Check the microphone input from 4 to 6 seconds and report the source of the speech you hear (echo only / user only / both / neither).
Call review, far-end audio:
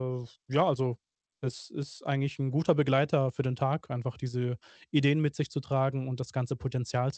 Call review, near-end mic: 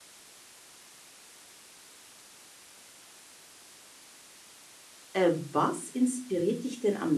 user only